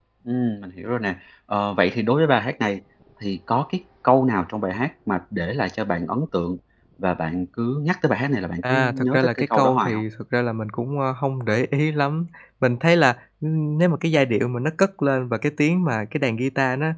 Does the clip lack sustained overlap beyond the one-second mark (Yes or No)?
No